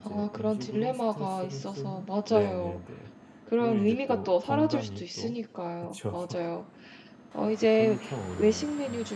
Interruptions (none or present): present